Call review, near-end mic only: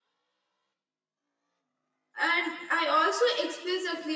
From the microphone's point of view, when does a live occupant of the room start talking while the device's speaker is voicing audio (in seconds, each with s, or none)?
2.2 s